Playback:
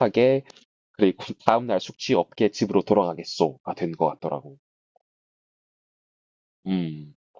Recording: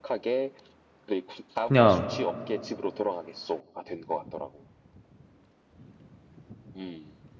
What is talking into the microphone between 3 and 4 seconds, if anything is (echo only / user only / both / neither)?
echo only